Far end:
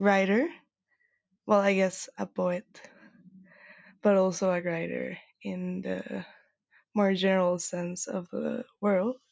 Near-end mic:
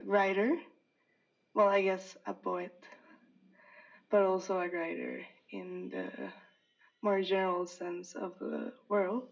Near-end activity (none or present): none